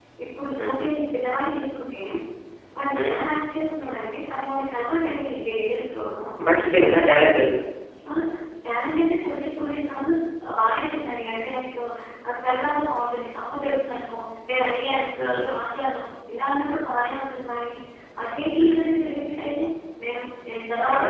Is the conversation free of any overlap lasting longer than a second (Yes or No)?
Yes